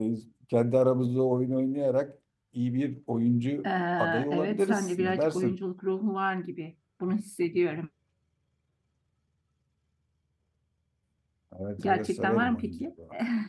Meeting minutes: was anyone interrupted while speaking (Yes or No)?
Yes